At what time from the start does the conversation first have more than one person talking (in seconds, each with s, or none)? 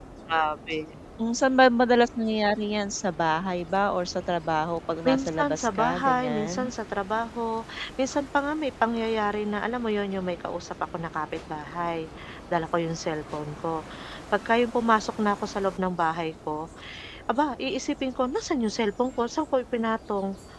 5.0 s